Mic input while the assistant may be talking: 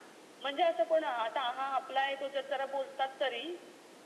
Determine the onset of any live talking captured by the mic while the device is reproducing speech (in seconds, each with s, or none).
none